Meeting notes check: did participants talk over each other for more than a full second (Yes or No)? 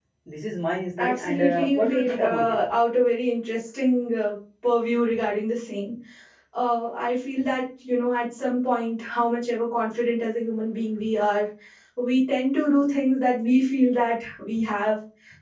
Yes